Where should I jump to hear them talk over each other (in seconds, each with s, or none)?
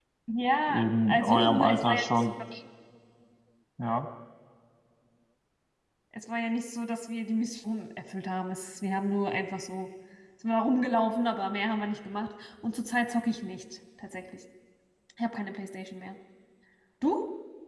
0.7 s